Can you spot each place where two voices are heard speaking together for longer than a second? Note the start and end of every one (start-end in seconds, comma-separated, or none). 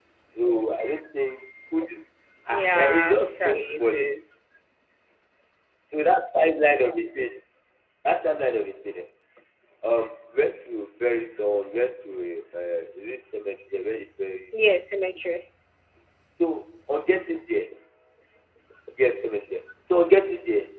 2.5-4.1